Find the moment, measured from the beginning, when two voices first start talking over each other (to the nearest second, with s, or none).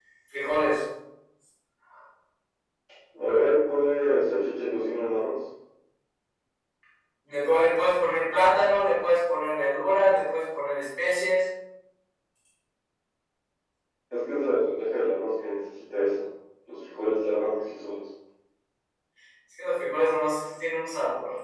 none